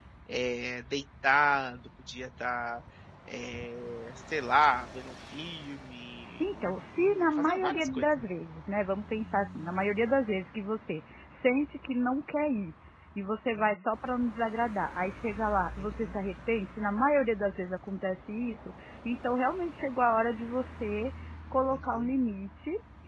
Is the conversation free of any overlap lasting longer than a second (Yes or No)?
No